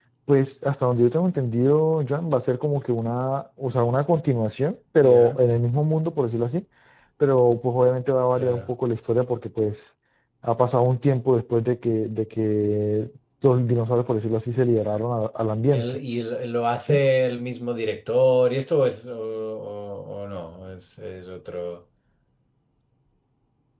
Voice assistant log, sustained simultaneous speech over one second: none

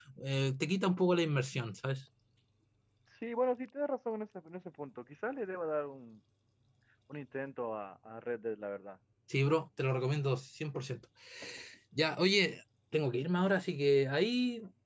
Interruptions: none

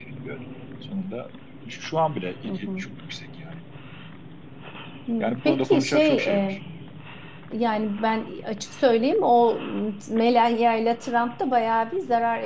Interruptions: present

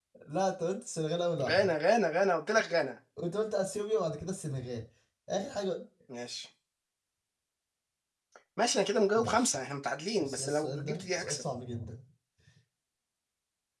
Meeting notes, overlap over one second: present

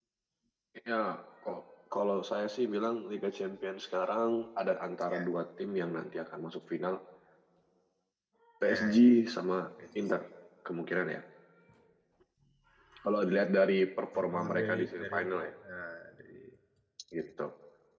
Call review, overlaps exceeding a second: present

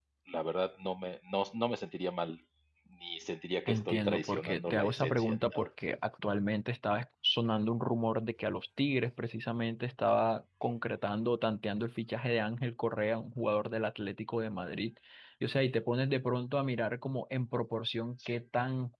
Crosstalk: present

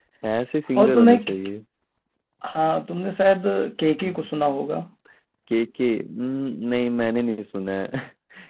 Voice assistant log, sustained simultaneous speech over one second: none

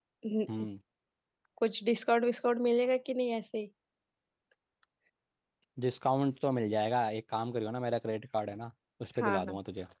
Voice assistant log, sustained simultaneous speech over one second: none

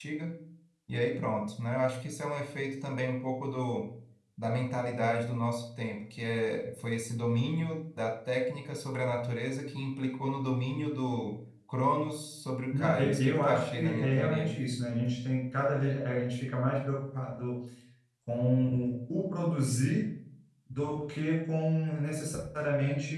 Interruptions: present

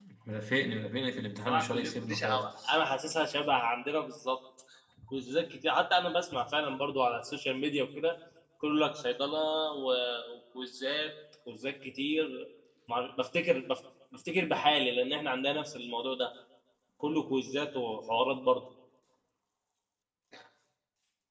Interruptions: present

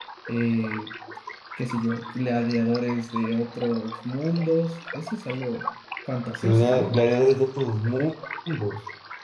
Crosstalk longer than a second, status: none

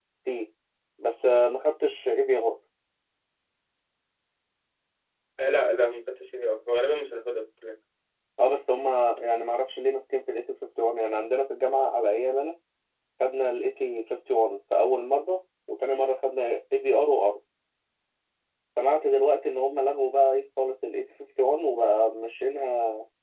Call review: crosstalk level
none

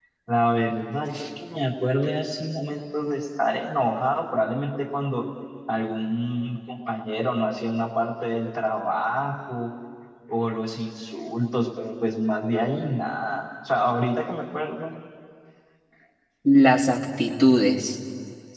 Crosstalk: none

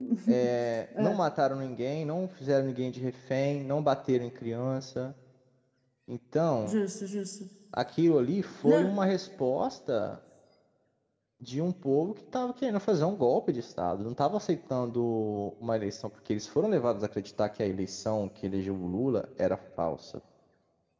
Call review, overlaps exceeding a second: none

